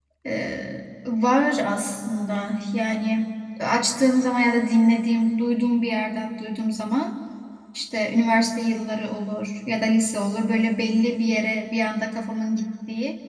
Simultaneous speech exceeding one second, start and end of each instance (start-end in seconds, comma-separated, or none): none